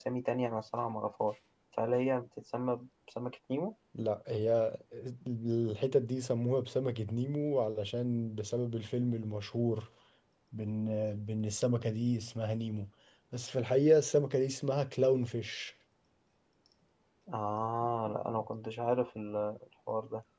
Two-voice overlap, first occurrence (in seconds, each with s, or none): none